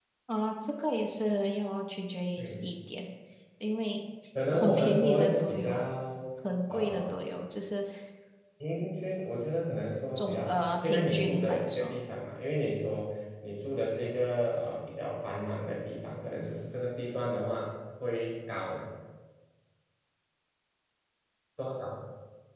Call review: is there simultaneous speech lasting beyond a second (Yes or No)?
Yes